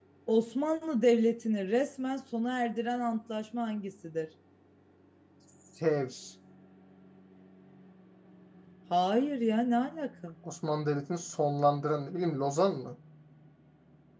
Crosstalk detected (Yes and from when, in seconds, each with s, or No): No